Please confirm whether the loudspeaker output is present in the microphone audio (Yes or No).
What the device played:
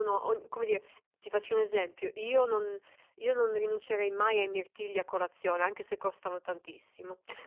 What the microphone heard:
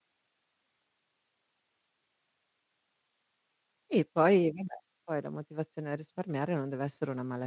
No